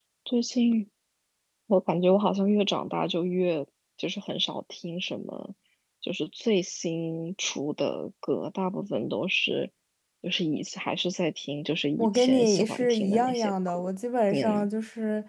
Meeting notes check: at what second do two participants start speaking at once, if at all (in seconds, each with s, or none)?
12.0 s